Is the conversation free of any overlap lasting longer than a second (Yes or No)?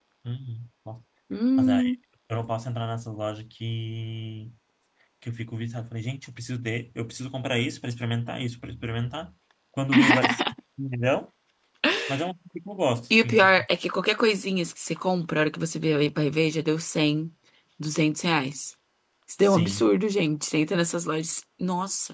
Yes